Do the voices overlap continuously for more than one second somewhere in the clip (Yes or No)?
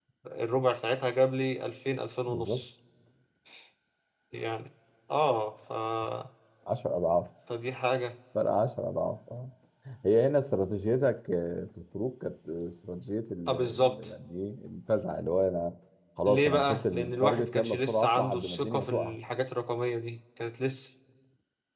Yes